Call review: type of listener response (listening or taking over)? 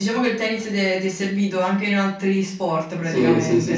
taking over